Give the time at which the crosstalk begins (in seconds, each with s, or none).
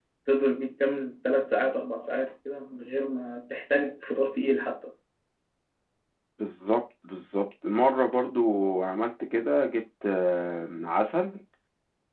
none